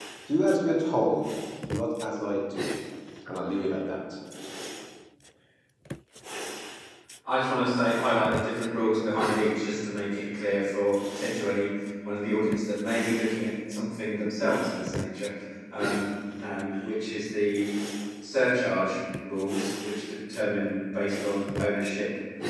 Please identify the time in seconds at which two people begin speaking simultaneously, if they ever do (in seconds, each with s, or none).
none